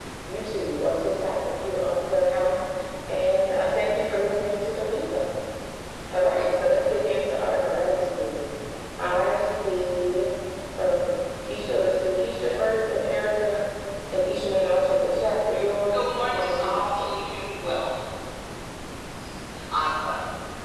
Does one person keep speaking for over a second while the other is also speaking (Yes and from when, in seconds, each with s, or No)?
Yes, from 15.9 s